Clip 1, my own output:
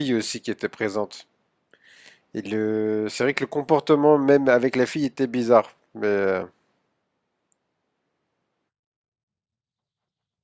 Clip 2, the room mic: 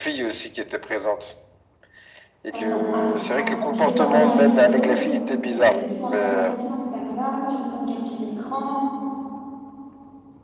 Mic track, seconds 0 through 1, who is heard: echo only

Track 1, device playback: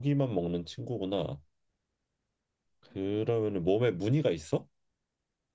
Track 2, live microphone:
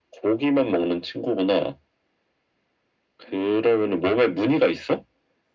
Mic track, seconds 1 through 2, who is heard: echo only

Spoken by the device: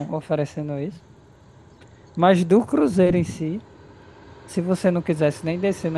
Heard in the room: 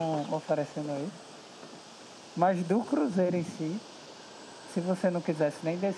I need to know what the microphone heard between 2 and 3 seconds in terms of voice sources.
echo only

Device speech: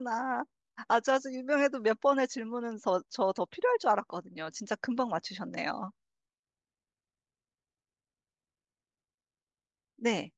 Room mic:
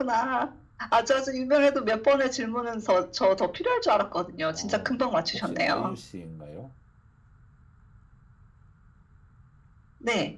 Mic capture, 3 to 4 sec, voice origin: echo only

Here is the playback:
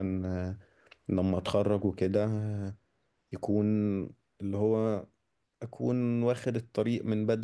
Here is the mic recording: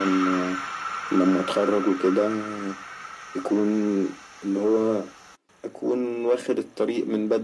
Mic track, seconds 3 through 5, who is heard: echo only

